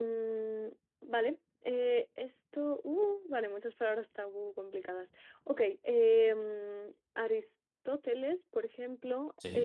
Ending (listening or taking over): listening